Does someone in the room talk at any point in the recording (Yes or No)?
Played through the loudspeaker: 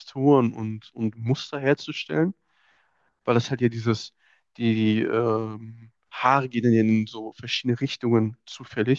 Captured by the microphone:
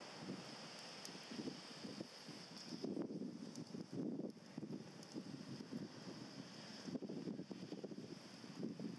No